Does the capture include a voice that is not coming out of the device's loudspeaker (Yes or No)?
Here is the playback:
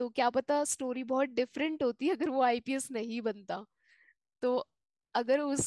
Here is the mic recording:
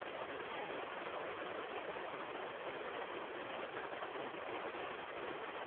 No